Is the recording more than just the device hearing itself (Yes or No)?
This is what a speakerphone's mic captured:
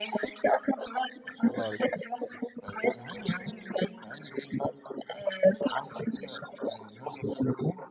Yes